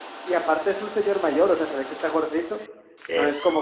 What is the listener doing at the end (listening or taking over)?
listening